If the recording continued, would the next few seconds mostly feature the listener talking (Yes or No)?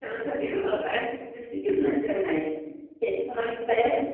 No